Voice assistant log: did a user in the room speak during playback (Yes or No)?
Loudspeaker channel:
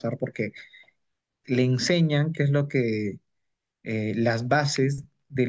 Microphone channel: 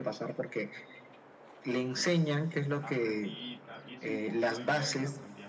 Yes